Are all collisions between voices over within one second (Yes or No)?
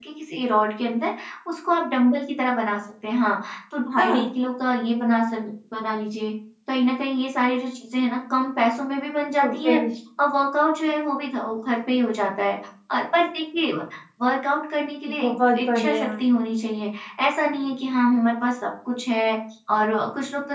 No